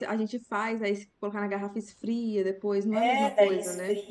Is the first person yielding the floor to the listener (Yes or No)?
Yes